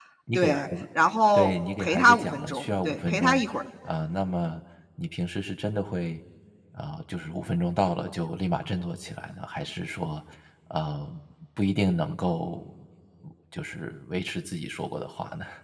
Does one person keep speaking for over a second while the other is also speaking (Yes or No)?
Yes